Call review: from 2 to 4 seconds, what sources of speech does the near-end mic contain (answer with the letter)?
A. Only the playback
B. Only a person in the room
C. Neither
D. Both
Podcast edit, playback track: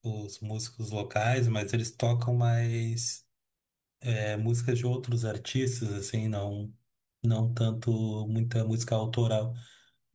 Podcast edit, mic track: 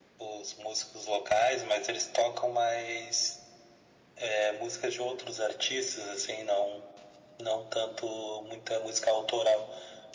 A